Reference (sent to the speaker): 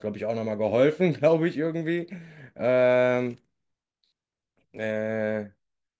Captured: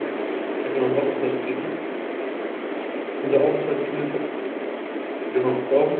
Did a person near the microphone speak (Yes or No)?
Yes